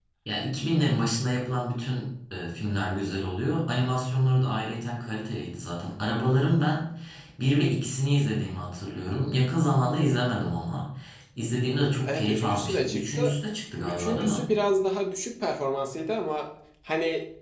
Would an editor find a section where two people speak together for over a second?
Yes, from 12.0 s

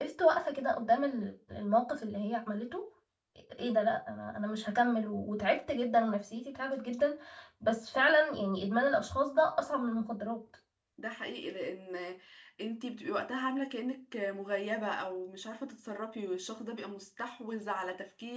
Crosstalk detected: No

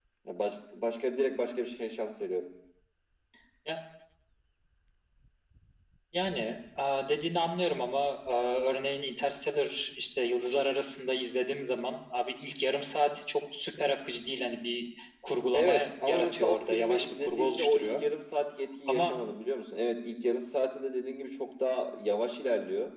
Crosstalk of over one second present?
Yes, from 15.5 s

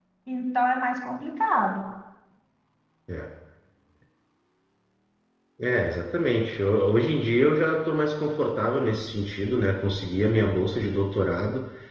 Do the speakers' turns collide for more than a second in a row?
No

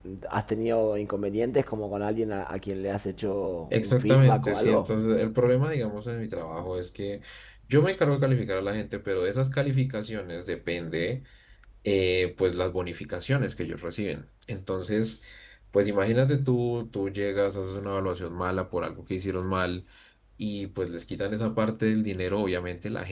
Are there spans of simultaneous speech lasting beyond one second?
Yes, from 3.7 s

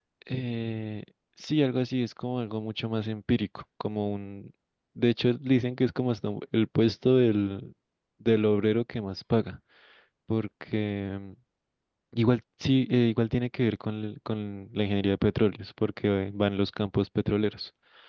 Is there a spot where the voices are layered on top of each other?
No

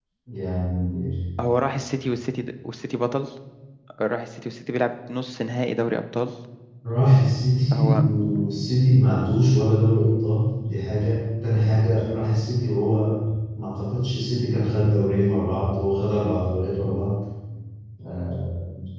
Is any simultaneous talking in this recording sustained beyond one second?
No

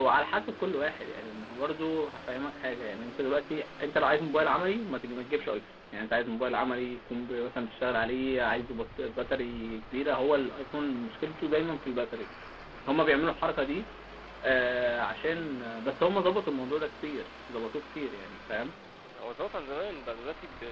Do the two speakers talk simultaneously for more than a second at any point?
No

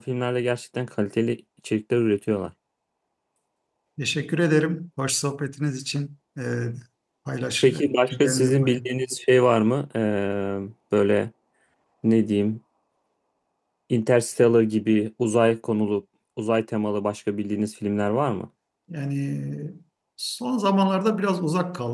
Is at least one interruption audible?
Yes, from 7.6 s

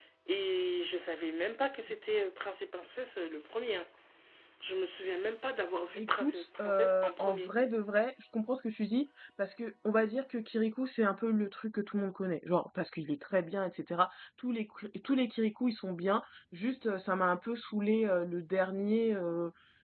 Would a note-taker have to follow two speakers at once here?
Yes, from 6.0 s

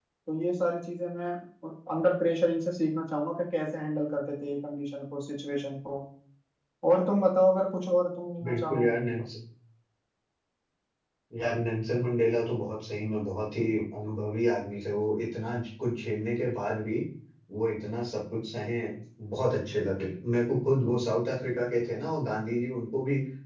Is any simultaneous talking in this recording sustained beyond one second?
No

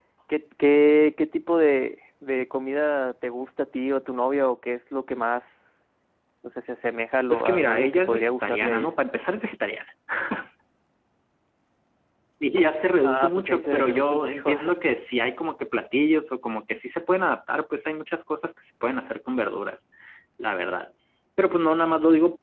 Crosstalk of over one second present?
Yes, from 7.3 s

